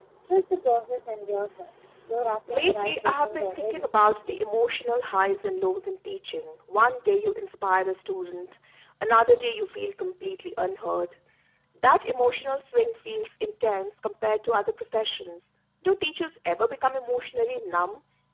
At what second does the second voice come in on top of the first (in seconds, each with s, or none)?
2.5 s